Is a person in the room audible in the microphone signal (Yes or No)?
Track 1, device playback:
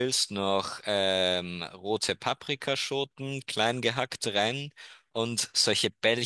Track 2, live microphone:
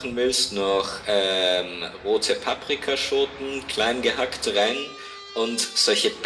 No